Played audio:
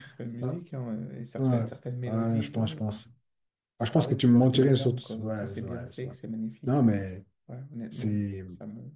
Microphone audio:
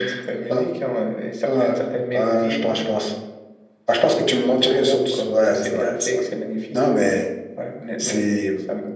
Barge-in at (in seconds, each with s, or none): none